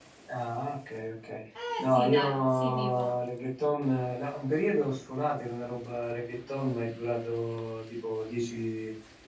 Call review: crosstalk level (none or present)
present